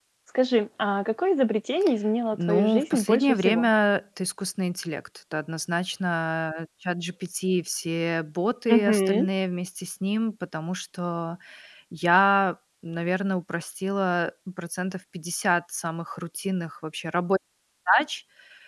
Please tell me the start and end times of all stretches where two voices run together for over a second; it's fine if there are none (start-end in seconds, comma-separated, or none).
2.4-3.7